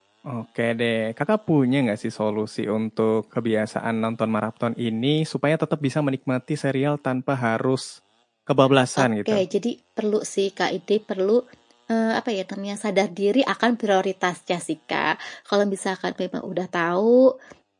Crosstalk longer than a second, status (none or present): none